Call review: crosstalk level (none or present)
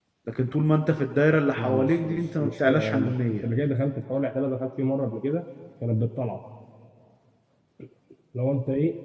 present